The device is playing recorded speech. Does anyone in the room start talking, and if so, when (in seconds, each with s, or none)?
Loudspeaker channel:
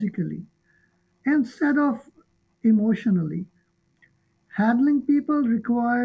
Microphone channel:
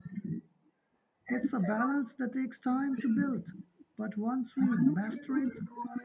1.3 s